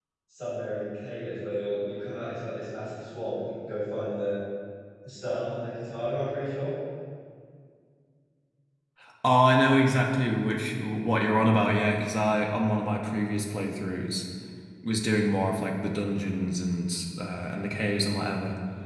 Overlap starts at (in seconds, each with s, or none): none